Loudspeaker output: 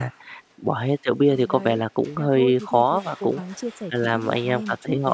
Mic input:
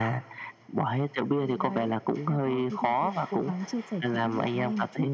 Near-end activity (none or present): none